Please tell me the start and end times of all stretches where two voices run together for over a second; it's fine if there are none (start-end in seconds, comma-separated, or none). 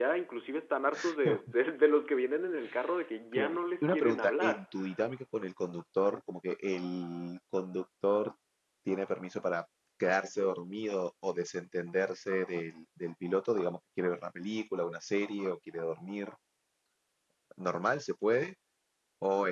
3.3-4.6